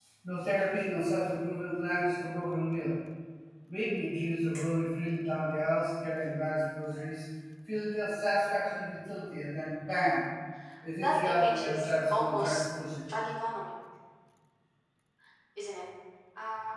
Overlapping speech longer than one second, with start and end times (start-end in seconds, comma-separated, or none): 11.0-12.6